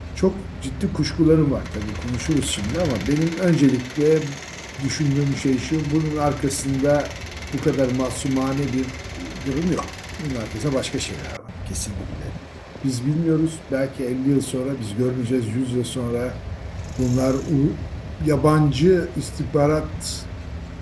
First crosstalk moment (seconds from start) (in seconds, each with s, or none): none